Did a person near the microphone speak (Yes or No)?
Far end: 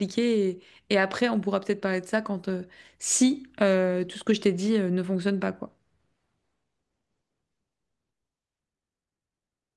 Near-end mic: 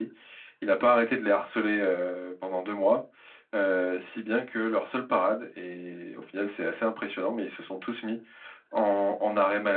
Yes